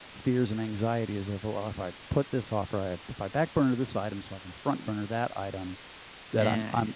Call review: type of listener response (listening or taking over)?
listening